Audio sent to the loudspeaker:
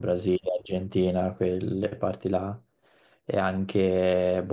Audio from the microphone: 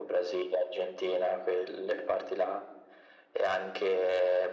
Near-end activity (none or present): none